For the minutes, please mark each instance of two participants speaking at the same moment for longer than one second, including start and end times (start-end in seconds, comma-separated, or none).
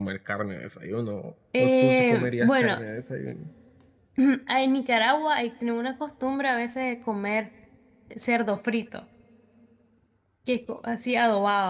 1.6-2.8